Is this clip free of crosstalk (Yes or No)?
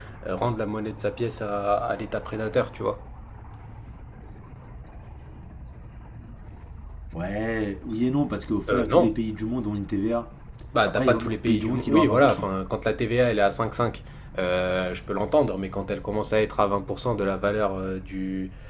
No